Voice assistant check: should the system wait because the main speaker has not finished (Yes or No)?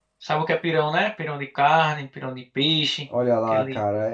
No